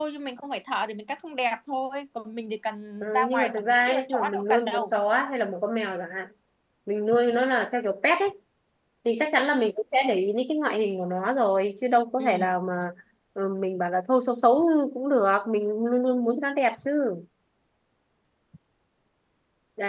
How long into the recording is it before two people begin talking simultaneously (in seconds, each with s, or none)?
3.0 s